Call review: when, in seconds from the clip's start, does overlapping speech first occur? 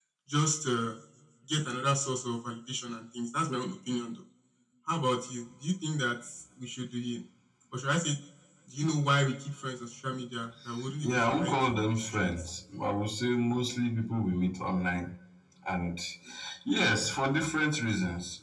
11.0 s

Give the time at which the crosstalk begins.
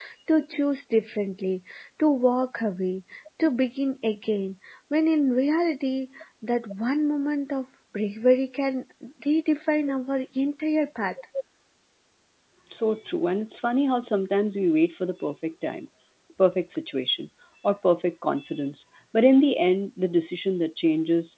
none

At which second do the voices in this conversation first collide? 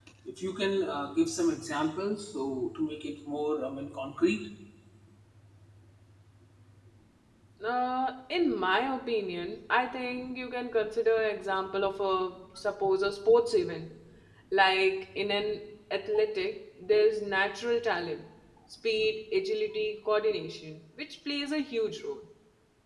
none

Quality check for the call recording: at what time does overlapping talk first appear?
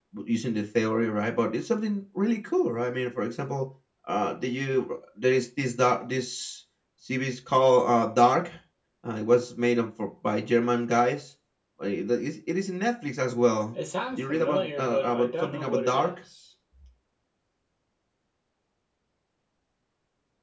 14.2 s

